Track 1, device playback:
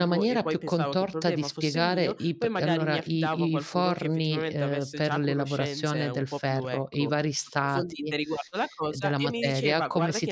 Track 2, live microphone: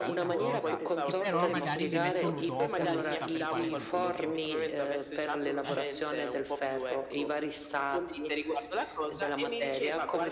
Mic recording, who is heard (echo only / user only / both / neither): both